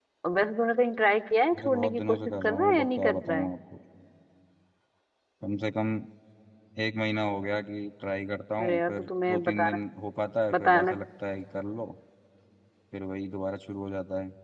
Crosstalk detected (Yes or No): Yes